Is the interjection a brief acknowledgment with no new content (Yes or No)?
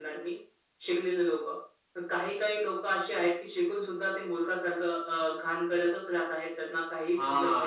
No